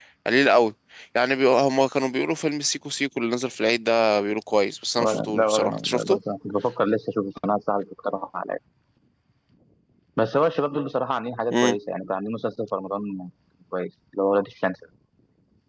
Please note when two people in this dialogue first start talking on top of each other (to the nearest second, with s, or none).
5 s